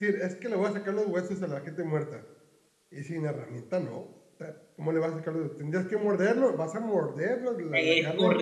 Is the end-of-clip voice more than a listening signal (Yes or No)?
Yes